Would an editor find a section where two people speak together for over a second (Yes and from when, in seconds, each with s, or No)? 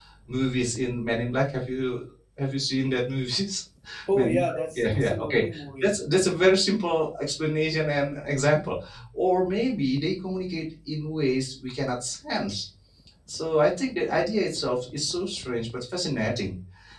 Yes, from 4.2 s